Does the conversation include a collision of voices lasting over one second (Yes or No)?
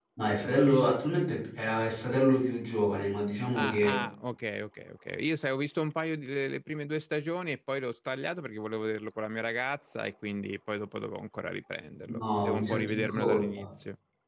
Yes